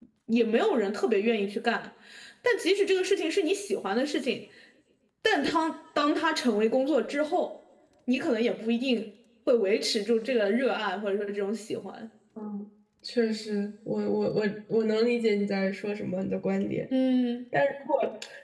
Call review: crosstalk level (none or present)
none